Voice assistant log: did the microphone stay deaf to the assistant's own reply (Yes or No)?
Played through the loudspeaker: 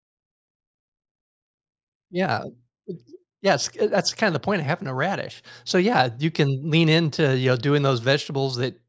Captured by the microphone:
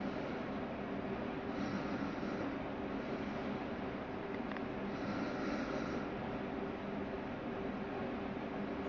Yes